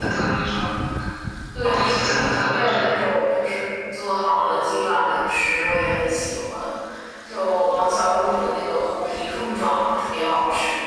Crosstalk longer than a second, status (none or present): present